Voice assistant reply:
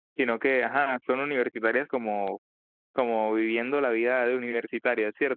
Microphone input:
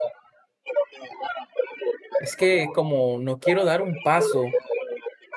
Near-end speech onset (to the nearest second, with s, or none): 2 s